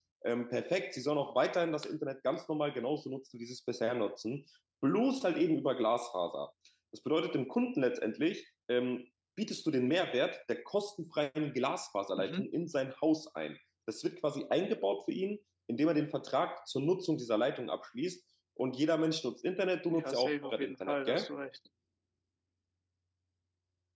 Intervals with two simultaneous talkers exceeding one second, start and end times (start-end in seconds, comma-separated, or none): 19.9-21.3